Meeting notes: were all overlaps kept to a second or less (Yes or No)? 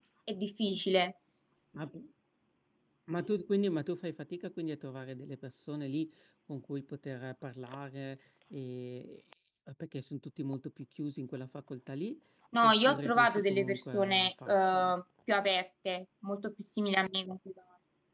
No